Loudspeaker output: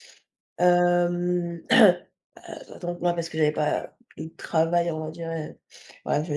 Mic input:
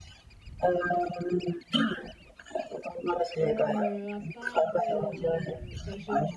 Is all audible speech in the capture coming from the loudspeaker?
No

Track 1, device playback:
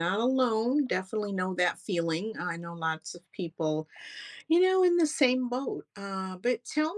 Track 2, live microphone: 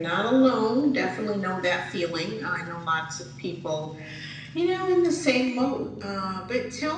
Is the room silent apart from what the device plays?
Yes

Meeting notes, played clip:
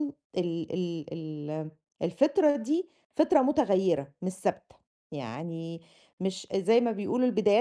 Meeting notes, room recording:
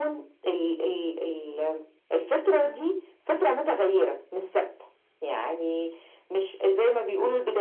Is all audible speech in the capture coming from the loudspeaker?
Yes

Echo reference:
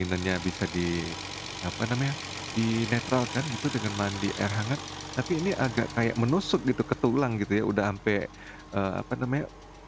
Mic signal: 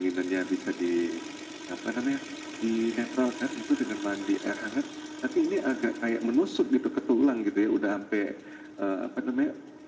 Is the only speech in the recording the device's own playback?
Yes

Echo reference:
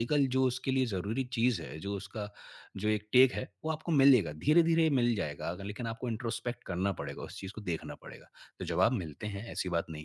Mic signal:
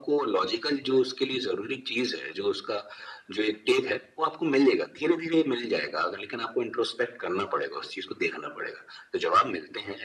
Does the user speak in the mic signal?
No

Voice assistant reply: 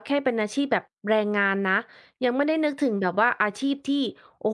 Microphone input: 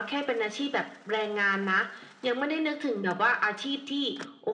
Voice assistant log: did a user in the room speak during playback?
No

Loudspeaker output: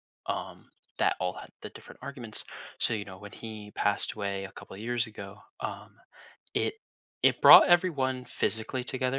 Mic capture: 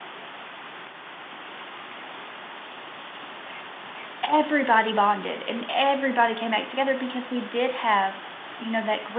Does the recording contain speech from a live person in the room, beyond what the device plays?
Yes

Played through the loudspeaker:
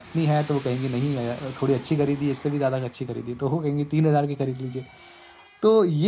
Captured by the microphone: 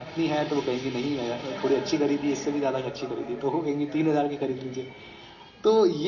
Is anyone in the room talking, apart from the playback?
Yes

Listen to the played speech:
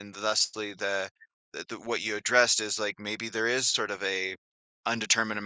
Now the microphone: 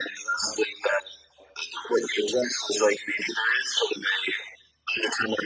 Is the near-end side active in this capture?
No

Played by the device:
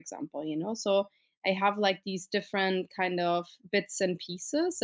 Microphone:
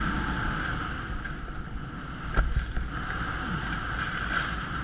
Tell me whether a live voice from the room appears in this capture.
No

